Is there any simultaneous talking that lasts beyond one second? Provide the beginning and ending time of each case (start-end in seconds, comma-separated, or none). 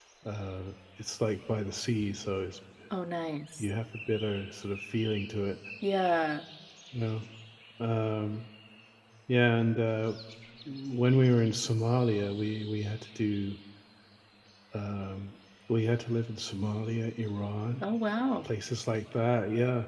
none